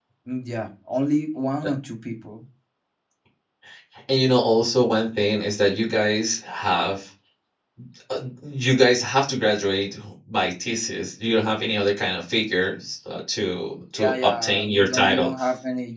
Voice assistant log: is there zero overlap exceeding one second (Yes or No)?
No